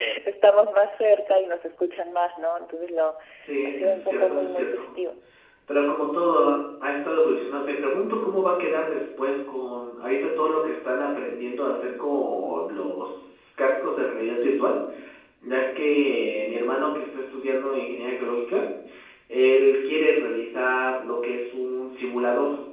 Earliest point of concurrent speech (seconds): 3.6 s

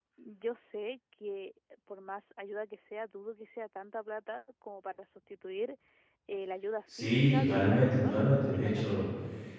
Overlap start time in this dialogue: 6.9 s

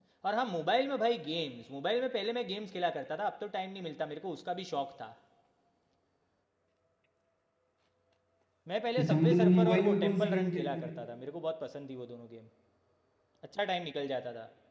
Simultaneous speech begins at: 9.0 s

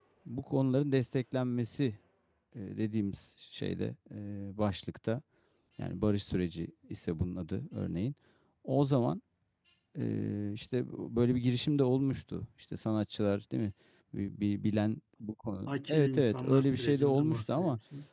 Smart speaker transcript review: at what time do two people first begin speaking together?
15.7 s

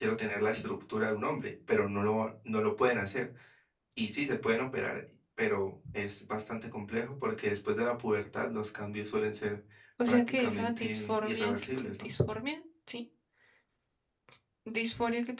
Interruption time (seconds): 10.0 s

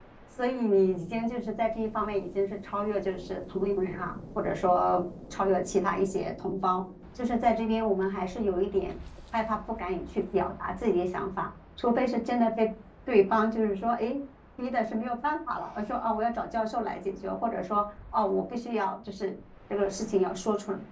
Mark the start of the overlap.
none

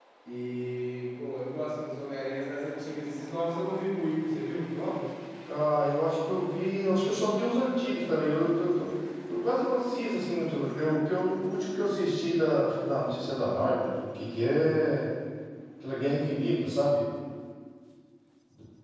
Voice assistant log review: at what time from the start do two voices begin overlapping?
none

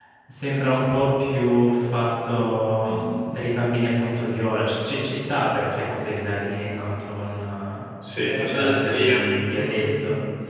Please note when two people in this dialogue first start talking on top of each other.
8.4 s

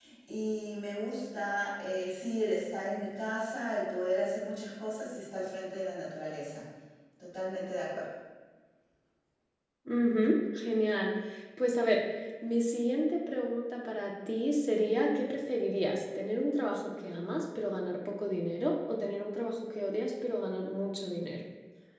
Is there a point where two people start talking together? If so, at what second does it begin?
none

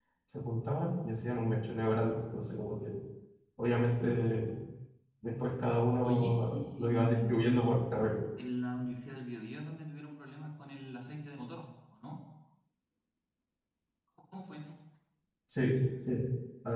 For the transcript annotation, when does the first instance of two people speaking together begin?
6.0 s

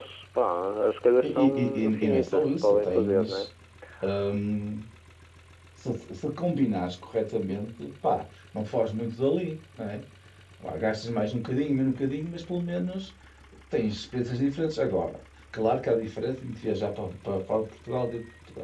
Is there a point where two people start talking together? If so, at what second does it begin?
1.2 s

